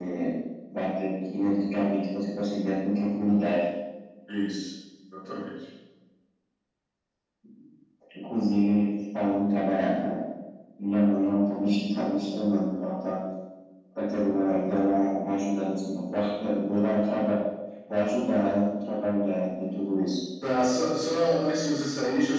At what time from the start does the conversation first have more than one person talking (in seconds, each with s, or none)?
none